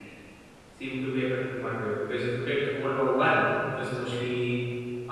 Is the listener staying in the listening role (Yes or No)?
Yes